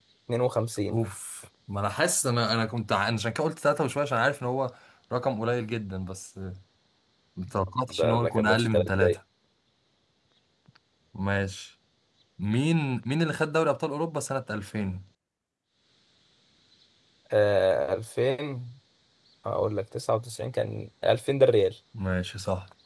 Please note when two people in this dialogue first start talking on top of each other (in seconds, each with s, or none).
7.9 s